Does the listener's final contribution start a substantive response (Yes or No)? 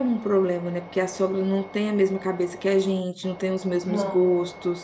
No